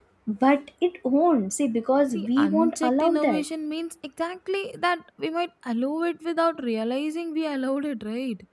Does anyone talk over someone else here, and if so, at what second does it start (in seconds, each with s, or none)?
2.1 s